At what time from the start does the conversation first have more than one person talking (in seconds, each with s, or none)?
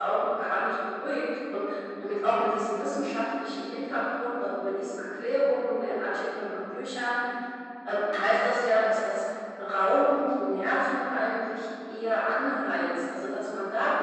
none